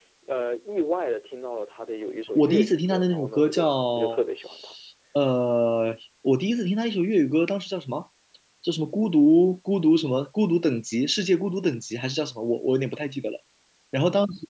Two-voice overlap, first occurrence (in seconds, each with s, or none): 2.4 s